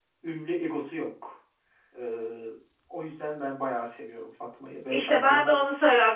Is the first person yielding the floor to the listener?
Yes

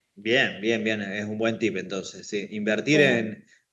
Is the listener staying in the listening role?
Yes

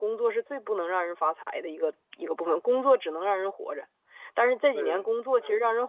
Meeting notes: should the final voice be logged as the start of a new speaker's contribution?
No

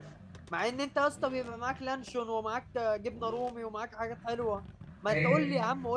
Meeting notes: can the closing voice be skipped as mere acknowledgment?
Yes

